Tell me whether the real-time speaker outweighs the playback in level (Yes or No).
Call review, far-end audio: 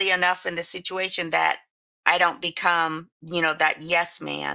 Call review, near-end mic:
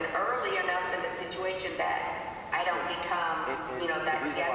No